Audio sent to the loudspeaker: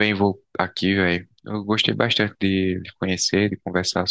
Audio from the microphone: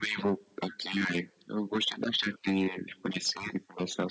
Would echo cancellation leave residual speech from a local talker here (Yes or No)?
No